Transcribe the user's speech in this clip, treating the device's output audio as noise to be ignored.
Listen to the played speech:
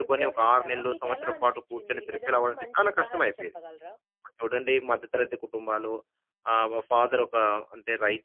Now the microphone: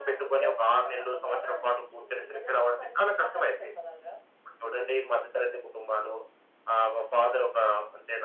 none

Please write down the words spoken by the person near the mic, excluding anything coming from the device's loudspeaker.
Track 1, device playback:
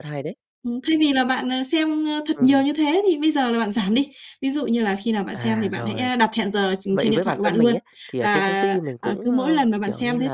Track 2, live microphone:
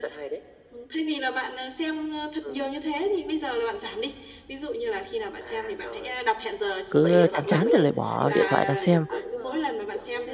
cứ chán chán thì lại bỏ điện thoại ra xem,

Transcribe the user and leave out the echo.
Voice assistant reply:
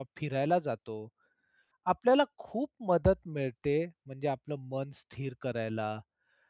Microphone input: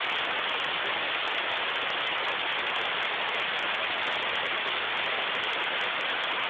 none

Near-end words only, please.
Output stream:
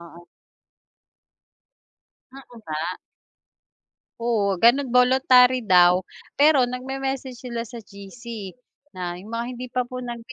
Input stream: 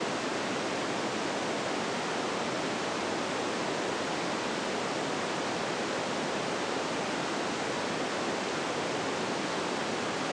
none

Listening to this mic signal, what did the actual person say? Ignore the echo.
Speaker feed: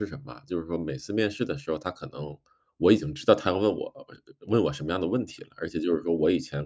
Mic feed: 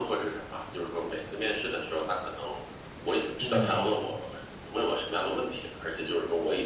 嗯，嗯，对。

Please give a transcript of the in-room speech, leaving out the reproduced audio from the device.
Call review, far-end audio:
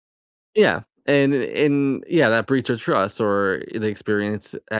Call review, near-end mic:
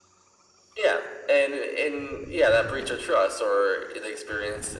none

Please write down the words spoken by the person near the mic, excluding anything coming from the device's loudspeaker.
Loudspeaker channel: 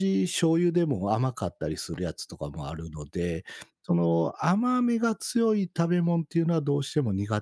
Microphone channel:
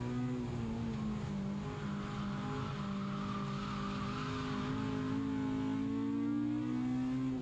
none

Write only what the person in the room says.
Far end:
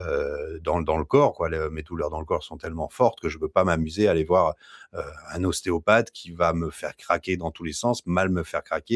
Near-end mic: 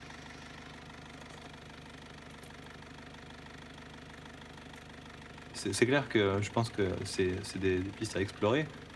c'est c'est clair que je pense que c'est c'est des des pistes à explorer.

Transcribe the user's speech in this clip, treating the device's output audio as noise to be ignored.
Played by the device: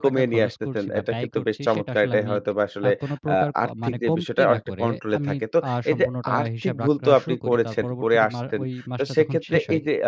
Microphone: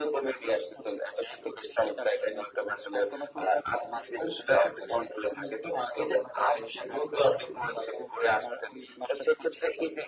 none

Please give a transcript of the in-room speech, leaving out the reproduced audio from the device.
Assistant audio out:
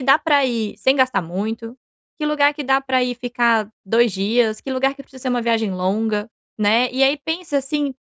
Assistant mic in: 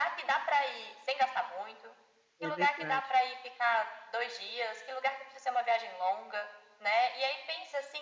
É verdade.

